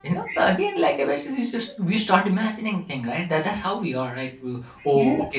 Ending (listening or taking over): listening